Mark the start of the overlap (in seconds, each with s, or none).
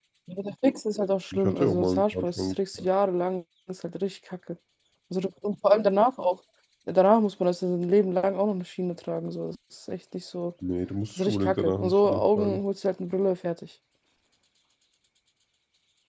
1.3 s